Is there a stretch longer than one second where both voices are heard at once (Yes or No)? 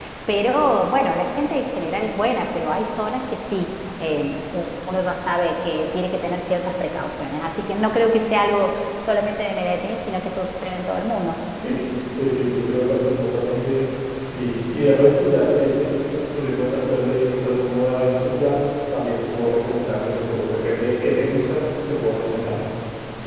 No